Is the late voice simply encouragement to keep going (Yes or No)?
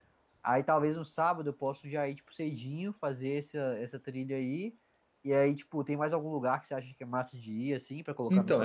No